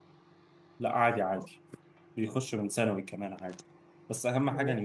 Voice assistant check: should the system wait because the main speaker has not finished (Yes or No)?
Yes